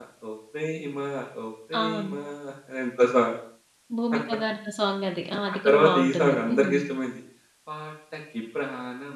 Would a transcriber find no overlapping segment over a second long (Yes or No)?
No